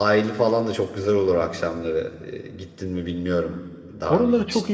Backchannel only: No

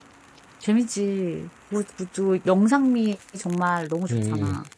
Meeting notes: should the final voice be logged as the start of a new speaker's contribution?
Yes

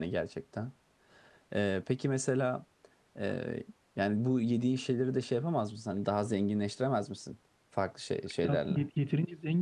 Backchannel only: No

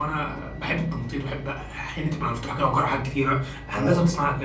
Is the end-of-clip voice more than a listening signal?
No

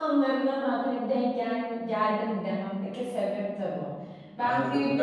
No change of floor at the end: No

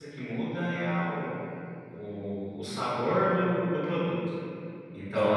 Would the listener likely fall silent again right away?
No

